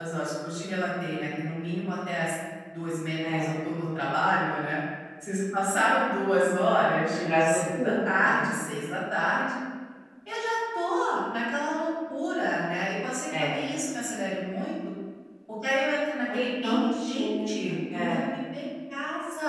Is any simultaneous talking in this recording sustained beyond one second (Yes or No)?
Yes